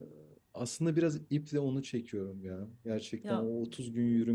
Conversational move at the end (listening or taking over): listening